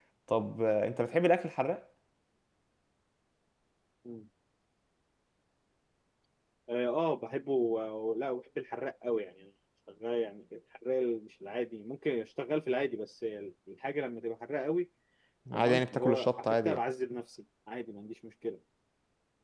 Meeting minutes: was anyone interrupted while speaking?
Yes, from 15.5 s

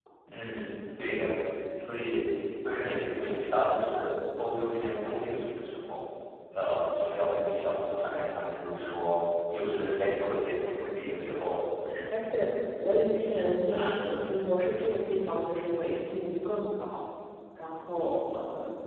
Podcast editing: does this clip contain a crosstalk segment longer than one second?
No

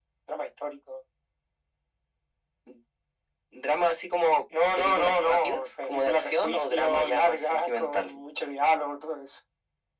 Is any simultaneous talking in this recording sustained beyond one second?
Yes, from 4.8 s

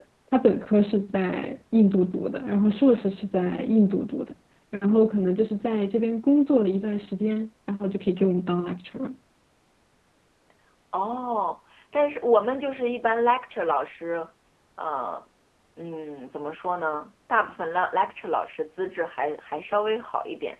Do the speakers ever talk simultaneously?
No

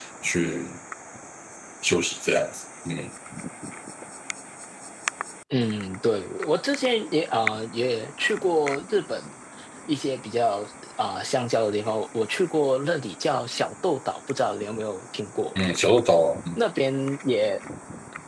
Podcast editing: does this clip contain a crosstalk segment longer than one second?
No

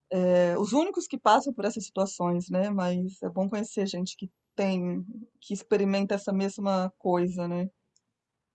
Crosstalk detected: No

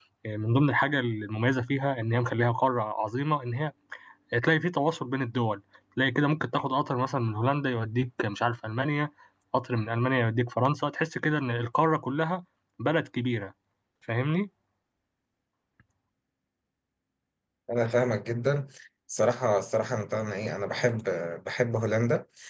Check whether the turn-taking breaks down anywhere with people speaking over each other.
No

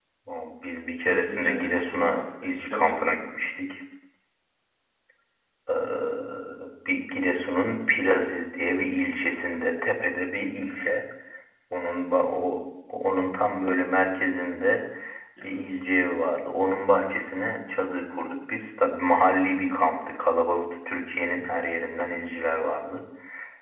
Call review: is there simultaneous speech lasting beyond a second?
Yes, from 1.0 s

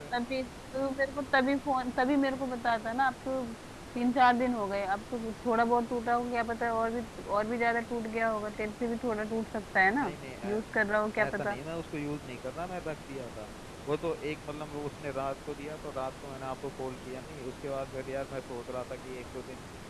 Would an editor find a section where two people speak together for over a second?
No

